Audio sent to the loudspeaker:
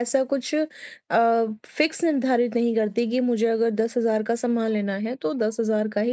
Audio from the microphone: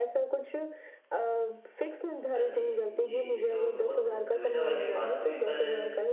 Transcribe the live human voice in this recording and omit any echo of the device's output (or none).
हाँ जी। जी, ये तो बहुत दुविधा वाली बात हुई पर